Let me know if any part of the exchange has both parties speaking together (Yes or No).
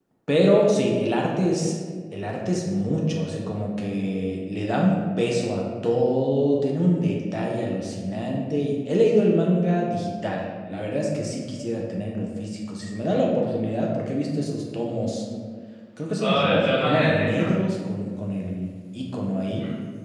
Yes